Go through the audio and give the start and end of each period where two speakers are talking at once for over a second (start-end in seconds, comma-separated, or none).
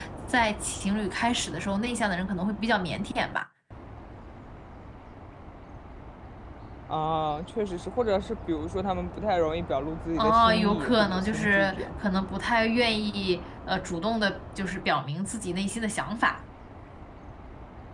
10.2-11.9